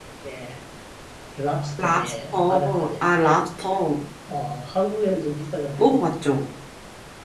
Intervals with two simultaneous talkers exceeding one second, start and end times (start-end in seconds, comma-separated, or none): 1.8-3.0